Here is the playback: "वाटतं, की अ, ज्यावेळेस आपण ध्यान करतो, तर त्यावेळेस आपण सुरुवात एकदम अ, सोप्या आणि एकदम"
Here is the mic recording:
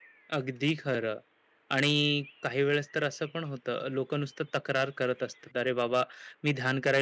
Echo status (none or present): none